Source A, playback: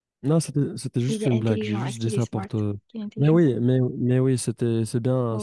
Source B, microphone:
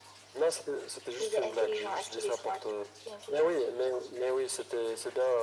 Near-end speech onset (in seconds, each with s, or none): none